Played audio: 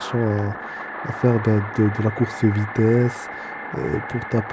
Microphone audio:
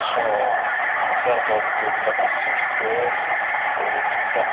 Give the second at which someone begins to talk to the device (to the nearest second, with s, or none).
none